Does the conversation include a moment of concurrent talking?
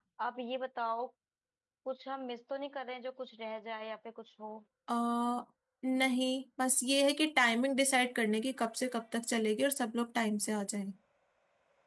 No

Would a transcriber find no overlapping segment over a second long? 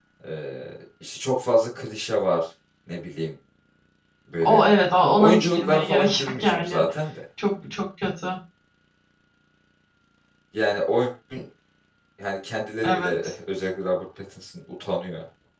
No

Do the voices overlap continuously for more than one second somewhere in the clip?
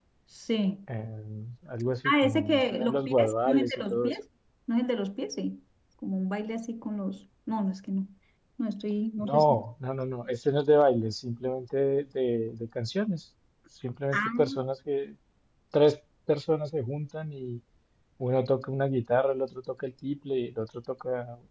Yes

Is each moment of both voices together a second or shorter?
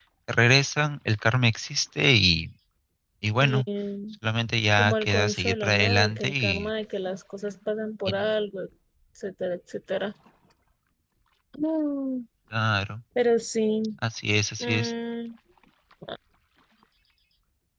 No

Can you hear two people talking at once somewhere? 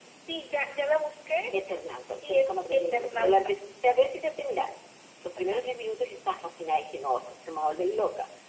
Yes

